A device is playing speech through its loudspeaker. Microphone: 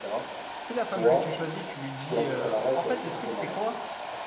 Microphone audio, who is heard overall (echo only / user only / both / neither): both